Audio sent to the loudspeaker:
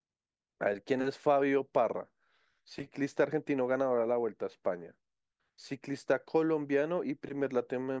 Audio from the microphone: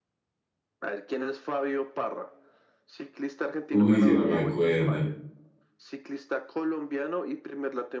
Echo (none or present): present